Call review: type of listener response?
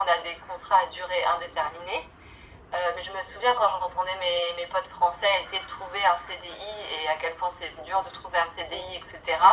listening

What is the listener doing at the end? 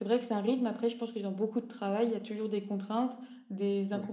listening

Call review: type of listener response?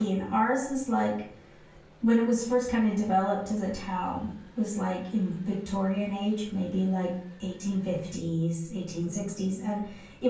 listening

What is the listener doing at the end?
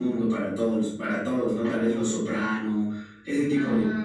listening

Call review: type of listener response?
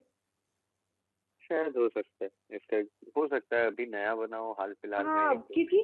taking over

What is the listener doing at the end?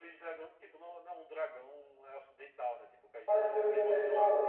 taking over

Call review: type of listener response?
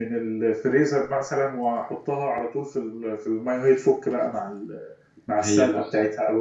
taking over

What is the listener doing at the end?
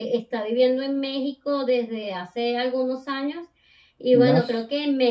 listening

